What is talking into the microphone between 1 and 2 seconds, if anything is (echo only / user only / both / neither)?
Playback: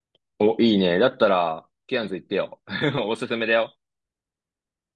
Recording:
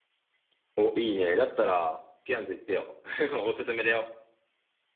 echo only